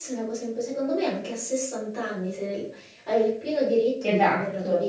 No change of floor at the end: Yes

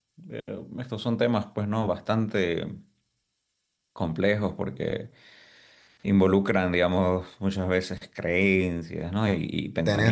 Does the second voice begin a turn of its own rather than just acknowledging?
No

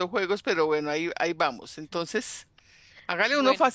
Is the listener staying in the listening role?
Yes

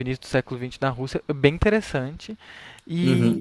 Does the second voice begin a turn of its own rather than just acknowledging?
Yes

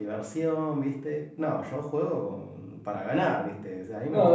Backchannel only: No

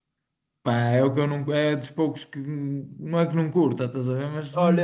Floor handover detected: Yes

